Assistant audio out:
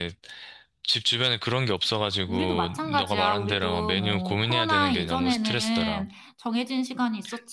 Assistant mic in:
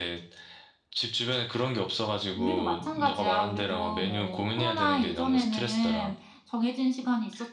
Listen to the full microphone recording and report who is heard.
echo only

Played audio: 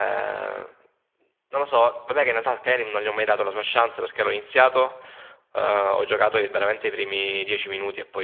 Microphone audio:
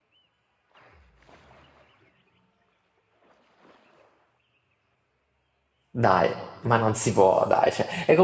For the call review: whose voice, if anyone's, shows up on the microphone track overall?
user only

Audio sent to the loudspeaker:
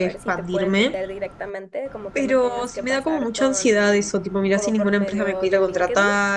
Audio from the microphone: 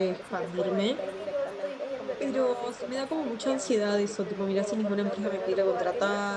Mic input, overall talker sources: both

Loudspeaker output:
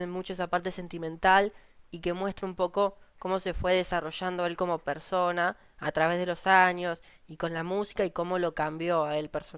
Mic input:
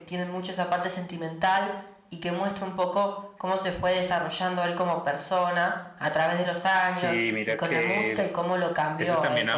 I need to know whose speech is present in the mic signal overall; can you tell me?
both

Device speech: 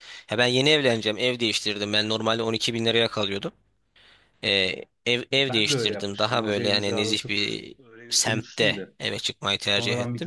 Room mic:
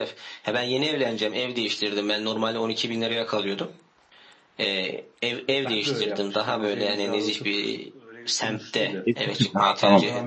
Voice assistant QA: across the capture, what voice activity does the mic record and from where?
both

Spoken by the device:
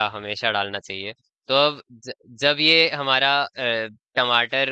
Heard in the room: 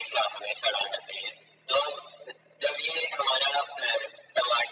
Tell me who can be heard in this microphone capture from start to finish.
echo only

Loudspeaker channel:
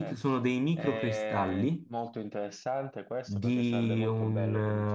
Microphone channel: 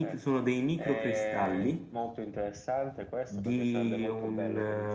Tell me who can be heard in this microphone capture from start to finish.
echo only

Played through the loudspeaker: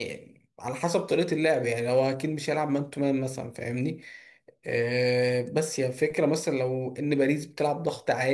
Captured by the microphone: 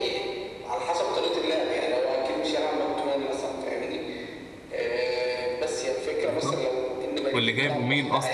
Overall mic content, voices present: both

